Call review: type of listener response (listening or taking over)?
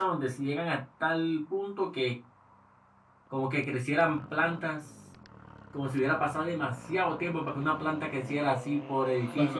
taking over